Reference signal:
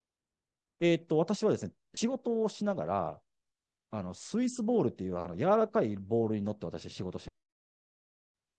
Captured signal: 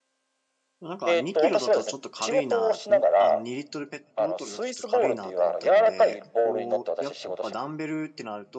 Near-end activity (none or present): present